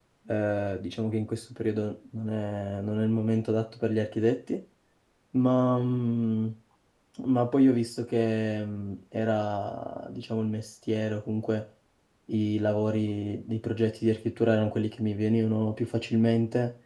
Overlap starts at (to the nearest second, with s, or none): none